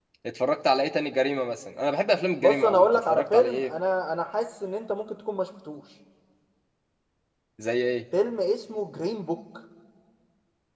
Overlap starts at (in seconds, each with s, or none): 2.4 s